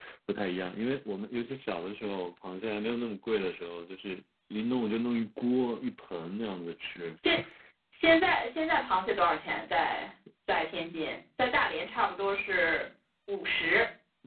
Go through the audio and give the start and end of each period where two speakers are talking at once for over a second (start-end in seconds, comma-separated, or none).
none